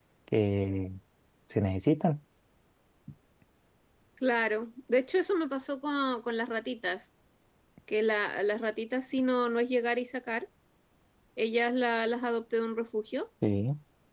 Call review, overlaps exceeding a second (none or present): none